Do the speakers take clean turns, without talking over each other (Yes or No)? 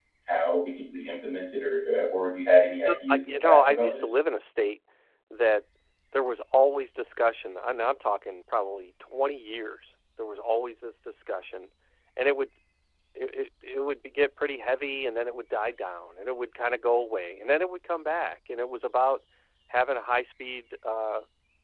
No